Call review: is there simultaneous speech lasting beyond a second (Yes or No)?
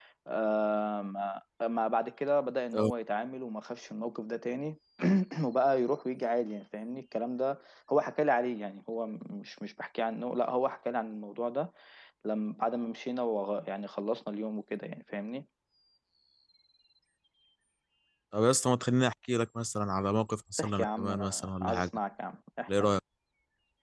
Yes